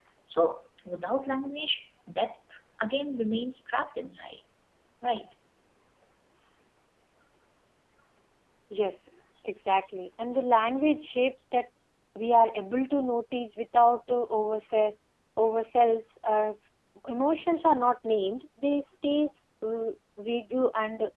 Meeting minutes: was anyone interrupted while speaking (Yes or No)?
No